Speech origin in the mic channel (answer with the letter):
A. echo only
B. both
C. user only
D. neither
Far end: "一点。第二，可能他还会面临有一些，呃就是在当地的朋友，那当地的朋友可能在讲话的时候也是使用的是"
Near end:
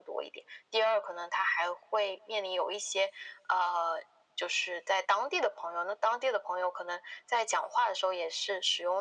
A